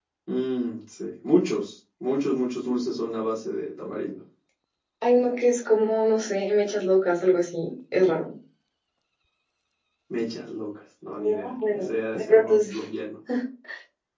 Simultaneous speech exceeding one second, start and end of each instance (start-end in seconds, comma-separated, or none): 11.2-12.7